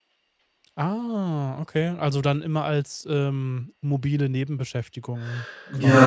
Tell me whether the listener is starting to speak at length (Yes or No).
Yes